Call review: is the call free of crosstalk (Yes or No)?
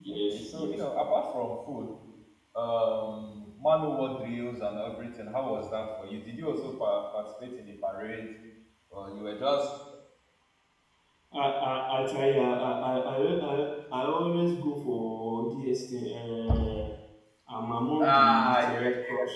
No